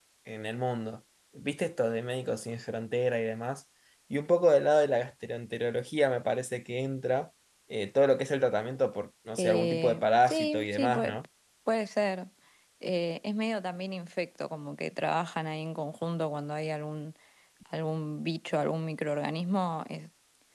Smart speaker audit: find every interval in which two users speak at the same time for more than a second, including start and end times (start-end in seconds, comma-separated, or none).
9.4-11.2